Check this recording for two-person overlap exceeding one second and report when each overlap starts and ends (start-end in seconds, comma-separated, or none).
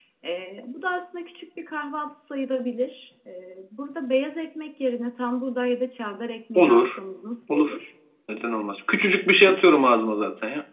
none